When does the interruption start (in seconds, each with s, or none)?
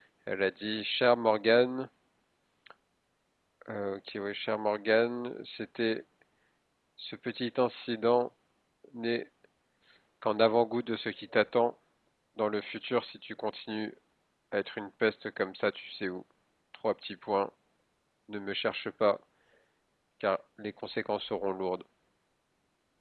none